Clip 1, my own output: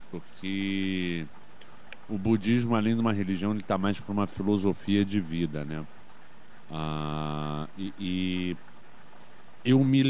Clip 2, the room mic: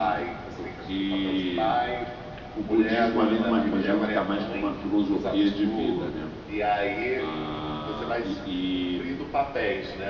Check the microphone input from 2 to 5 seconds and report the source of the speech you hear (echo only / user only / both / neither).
both